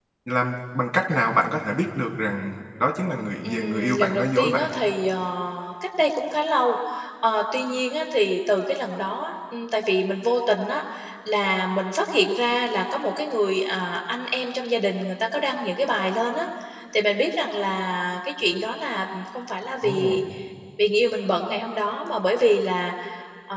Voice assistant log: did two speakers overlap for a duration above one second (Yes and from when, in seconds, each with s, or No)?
Yes, from 3.4 s